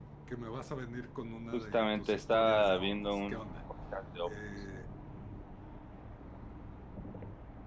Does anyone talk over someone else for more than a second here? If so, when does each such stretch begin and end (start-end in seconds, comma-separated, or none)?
1.5-3.4